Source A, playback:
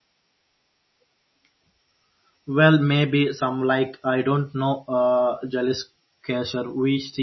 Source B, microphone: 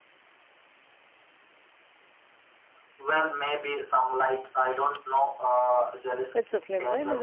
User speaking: Yes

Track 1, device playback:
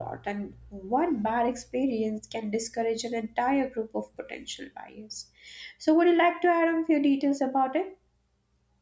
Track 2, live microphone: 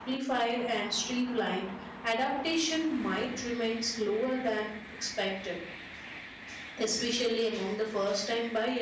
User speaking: Yes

